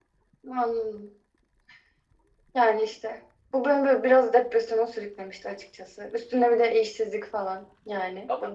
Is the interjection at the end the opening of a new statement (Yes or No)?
No